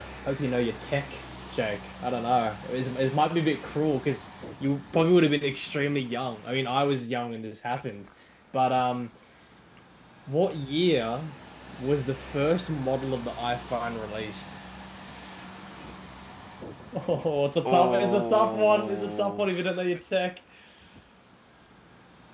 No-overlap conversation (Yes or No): No